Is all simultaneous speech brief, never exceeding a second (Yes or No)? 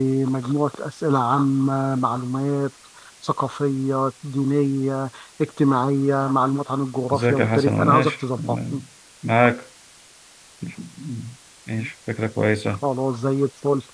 No